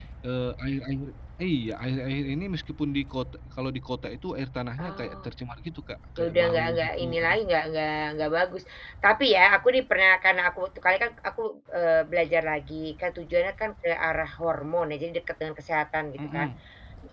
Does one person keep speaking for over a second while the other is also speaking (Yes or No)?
Yes